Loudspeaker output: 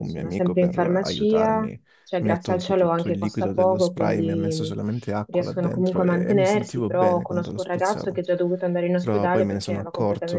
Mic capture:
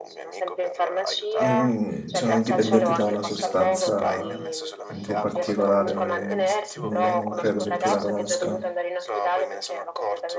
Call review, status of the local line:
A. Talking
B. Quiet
A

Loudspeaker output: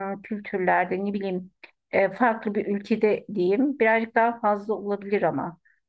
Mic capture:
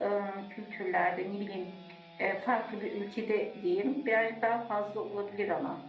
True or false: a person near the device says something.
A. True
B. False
B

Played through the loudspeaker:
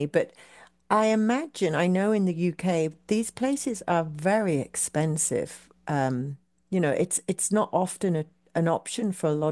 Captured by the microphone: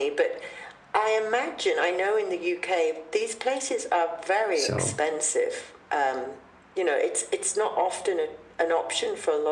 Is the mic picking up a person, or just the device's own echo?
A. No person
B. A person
B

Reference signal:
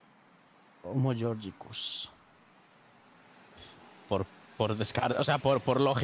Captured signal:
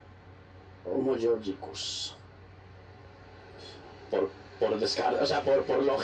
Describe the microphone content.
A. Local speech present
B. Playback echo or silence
B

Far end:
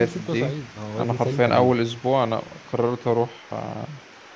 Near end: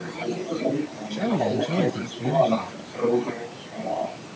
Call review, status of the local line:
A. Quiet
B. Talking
B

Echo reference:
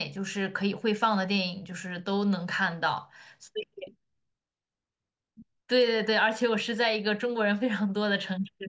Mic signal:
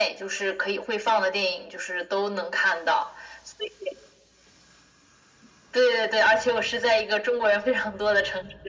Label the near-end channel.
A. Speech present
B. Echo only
B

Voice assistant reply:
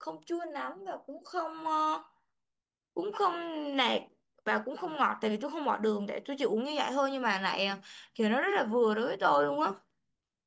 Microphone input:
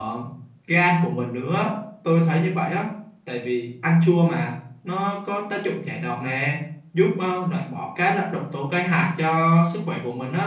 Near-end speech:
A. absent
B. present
B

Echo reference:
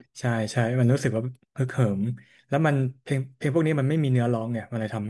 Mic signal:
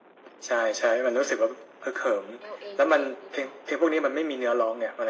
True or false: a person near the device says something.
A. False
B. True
B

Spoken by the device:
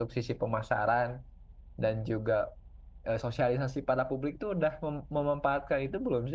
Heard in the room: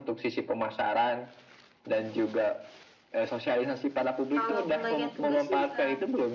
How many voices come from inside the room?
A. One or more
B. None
A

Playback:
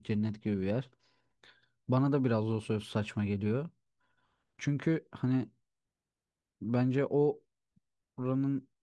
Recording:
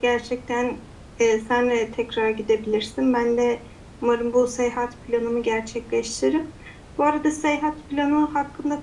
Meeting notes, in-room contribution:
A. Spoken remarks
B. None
A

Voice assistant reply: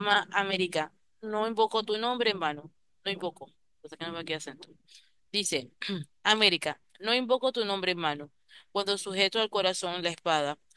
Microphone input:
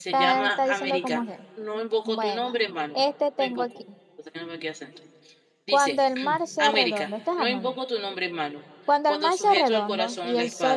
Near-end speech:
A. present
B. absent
A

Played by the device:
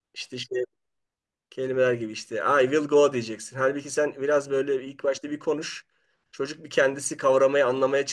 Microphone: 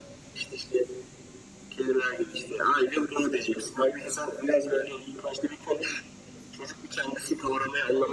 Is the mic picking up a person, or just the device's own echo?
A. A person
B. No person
B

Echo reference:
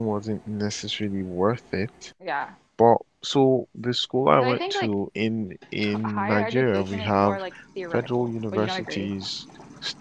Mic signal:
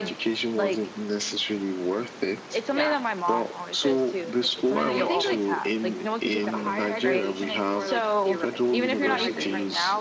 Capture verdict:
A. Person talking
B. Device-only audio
A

